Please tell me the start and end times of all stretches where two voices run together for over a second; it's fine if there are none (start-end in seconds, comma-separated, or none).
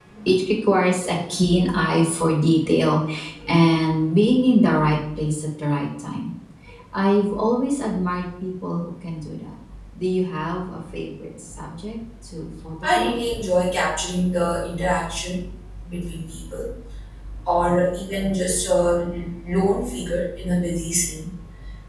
none